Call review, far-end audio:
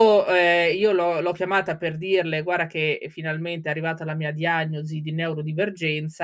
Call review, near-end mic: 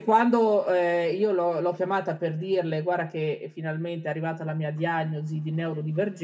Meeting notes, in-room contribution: none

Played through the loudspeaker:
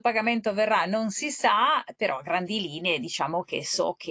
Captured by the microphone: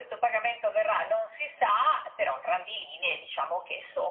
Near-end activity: none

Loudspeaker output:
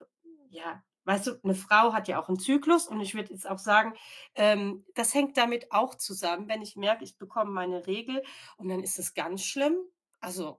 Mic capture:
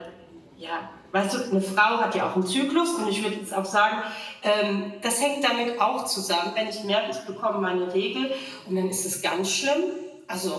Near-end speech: none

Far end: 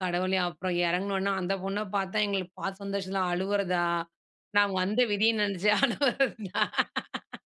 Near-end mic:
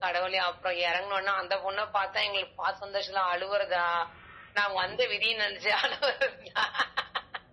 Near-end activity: none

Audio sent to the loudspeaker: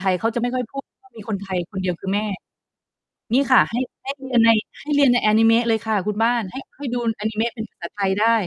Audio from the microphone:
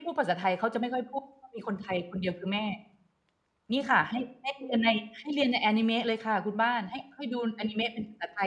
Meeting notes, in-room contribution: none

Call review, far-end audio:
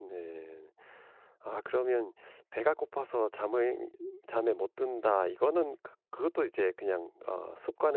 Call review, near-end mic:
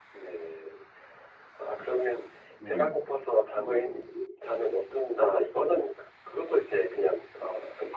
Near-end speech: present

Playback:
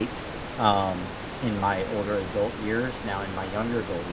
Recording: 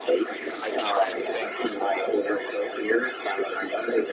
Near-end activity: present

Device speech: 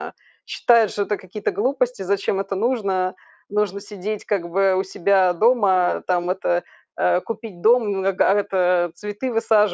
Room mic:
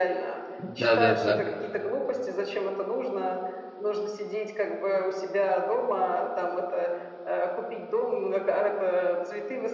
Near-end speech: present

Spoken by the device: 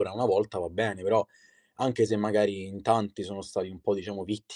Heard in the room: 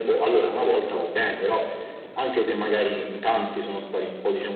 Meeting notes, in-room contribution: none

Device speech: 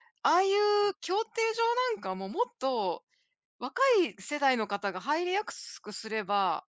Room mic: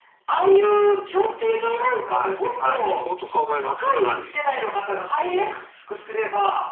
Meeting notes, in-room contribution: present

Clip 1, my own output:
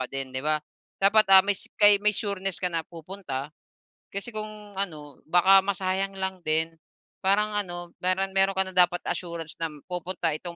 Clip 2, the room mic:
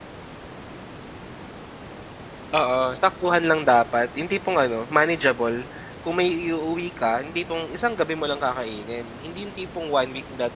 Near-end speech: present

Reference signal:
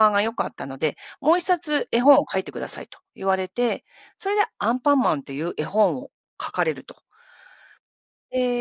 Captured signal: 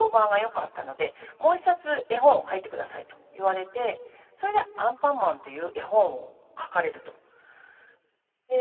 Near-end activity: none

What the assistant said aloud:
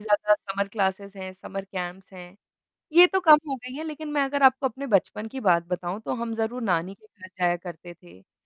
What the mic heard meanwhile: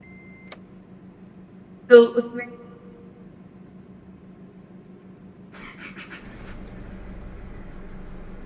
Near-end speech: present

